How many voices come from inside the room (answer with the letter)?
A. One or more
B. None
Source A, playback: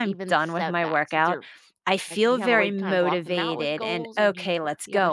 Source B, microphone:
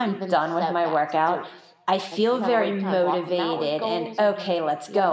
B